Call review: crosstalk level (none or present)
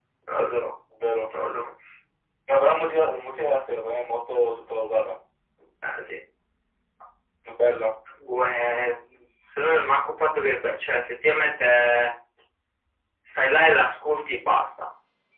none